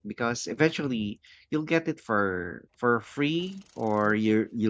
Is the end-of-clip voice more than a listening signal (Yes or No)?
No